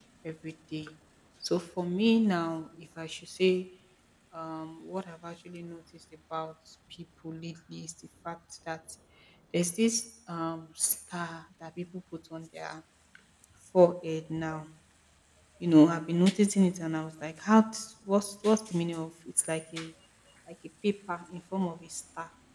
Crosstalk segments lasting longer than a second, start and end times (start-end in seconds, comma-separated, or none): none